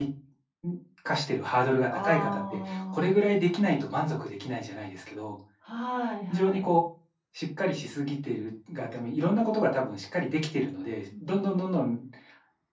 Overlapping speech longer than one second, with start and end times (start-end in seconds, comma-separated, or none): 1.9-3.1